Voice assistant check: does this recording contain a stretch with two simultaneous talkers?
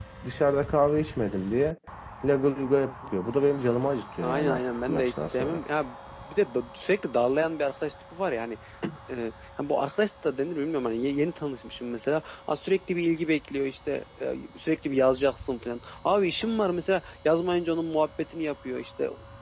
Yes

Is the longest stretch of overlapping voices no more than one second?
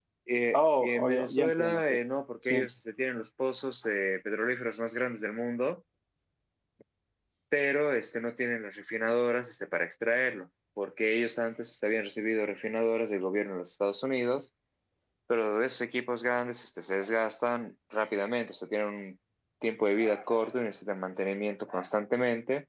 No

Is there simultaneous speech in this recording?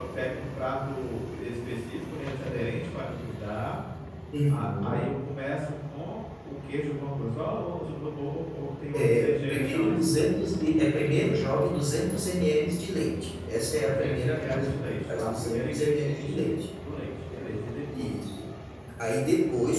Yes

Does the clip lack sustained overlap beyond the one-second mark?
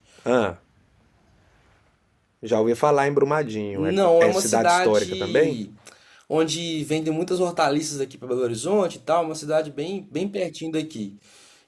No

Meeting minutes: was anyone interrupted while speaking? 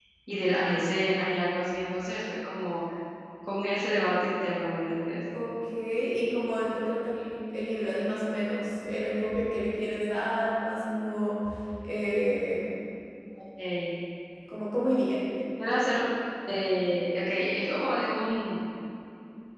No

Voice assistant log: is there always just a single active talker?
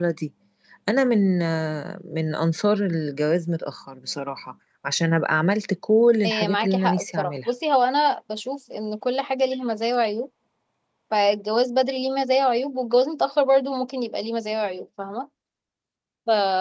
No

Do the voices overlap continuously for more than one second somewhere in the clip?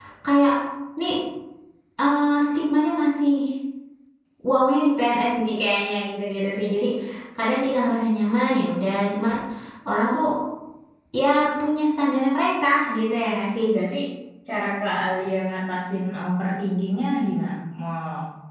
No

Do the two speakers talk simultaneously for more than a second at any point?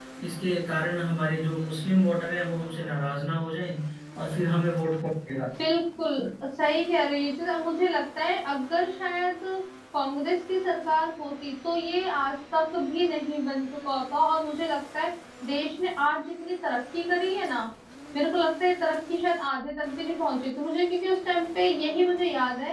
No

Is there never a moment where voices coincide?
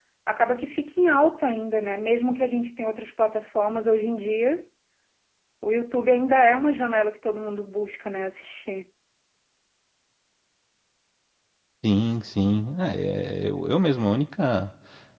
Yes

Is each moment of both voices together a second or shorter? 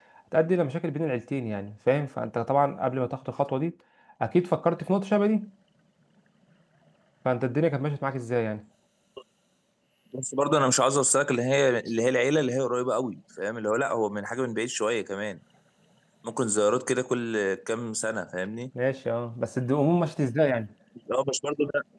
Yes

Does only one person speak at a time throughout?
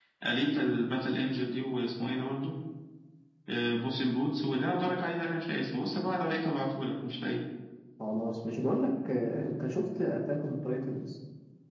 Yes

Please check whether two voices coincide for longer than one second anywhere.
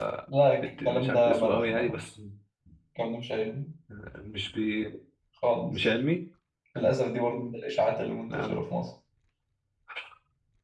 Yes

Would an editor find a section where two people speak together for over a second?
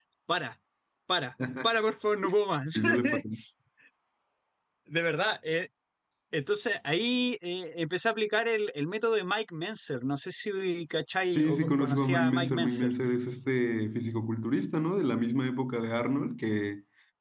Yes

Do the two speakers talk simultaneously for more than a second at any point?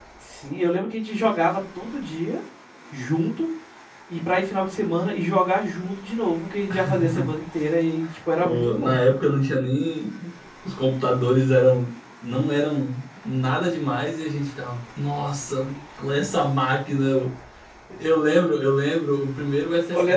No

